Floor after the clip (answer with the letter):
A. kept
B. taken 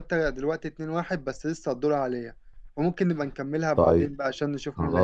B